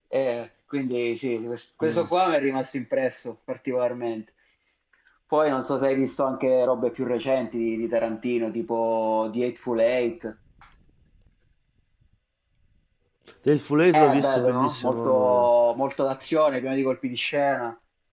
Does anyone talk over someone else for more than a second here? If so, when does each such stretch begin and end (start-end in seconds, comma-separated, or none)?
13.9-15.5